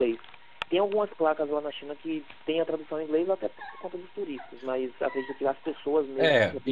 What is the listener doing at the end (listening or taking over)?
taking over